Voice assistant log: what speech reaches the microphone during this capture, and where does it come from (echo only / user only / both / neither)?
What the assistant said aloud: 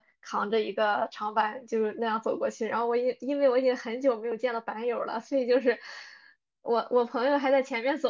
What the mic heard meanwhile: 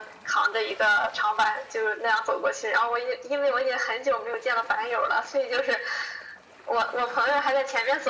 echo only